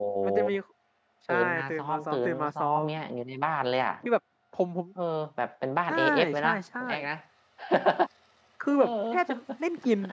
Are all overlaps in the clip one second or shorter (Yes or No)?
No